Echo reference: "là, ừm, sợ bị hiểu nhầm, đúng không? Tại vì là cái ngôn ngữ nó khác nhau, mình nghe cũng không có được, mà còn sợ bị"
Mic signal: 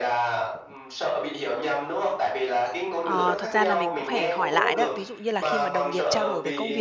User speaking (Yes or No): Yes